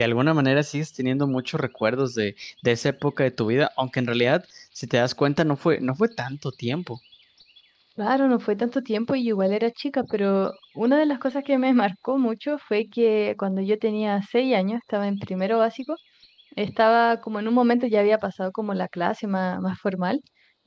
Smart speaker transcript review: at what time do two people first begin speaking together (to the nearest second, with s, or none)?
none